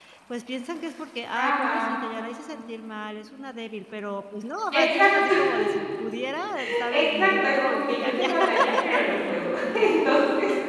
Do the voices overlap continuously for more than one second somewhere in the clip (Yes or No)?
Yes